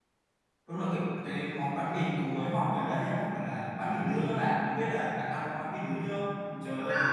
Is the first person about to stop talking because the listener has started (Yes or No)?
No